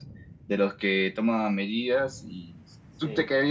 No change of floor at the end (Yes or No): Yes